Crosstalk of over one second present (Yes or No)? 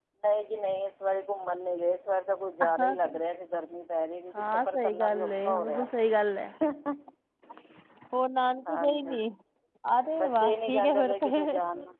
Yes